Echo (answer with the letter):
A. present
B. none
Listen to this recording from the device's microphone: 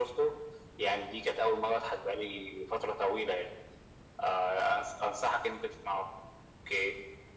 A